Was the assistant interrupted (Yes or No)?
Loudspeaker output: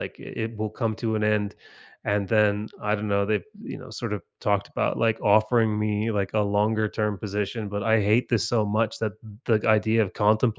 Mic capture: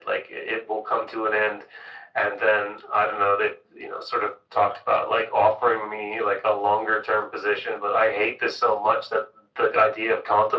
No